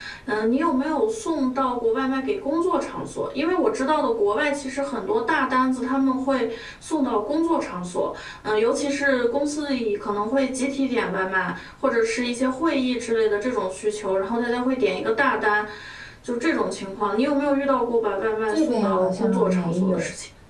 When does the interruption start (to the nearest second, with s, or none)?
18 s